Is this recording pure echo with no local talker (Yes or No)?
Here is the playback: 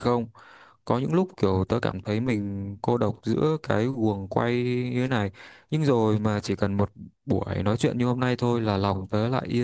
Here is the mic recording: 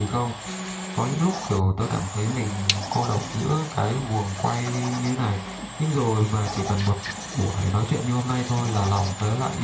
Yes